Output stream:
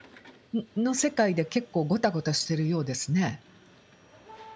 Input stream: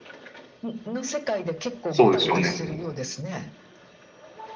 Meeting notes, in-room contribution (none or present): present